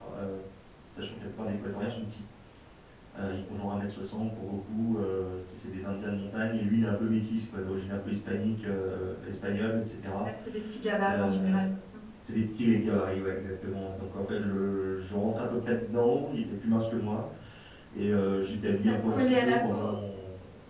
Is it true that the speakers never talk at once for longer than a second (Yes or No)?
No